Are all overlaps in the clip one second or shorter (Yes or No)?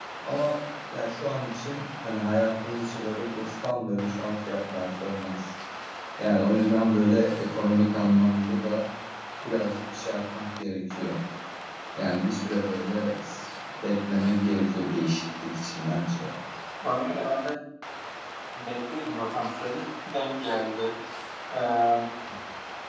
Yes